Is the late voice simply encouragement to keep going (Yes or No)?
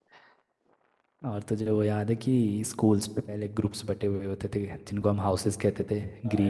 No